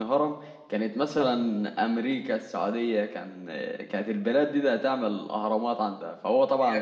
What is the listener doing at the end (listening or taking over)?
taking over